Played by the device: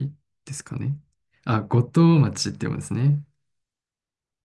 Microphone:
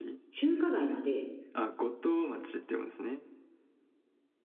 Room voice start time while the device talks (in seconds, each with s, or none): 0.3 s